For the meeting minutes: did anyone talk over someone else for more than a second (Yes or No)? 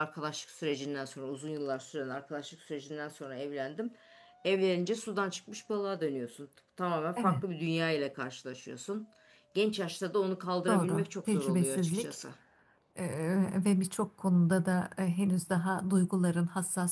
Yes